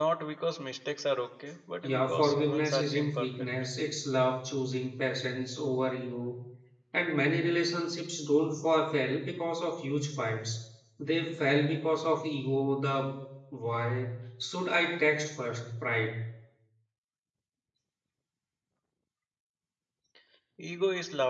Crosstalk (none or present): present